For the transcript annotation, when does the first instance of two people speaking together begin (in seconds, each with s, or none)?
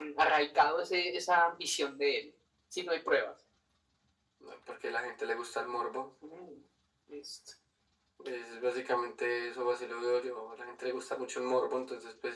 none